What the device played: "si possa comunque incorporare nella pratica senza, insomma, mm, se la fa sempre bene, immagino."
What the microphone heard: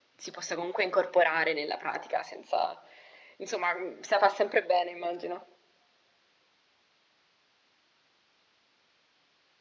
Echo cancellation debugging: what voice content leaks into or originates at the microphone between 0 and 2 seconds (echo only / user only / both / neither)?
echo only